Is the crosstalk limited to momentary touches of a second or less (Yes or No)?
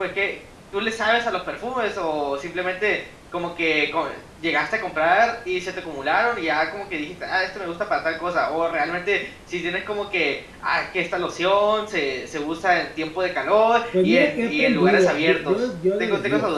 No